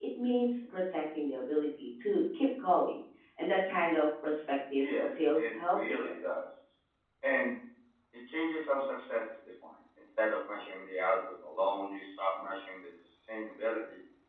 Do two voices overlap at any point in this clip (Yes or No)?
Yes